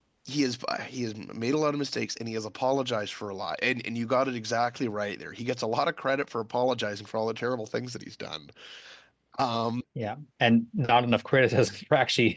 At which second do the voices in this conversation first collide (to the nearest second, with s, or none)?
none